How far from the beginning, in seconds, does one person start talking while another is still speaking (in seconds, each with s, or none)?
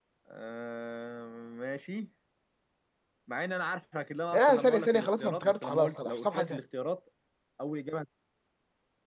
4.3 s